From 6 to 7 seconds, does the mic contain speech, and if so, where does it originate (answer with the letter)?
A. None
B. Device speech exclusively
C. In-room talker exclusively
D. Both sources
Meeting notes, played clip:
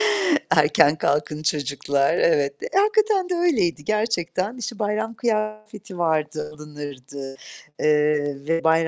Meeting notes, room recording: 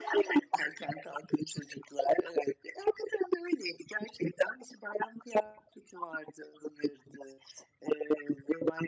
B